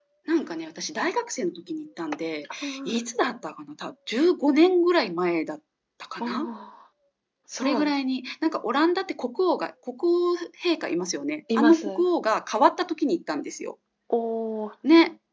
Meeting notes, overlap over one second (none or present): none